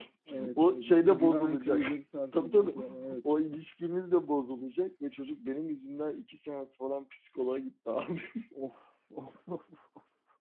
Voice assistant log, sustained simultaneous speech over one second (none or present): present